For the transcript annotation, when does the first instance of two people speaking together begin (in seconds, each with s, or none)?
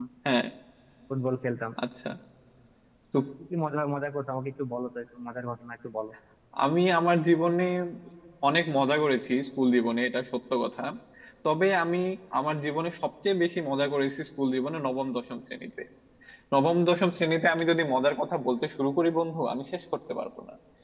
none